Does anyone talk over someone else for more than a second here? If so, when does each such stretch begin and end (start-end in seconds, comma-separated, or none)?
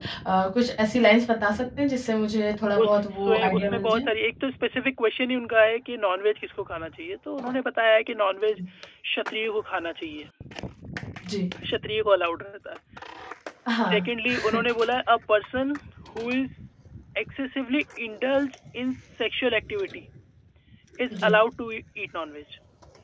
2.8-4.1